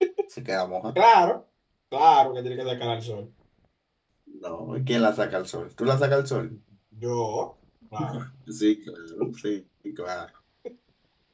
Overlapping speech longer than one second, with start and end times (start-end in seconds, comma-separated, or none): none